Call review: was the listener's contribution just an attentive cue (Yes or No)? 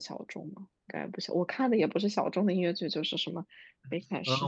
No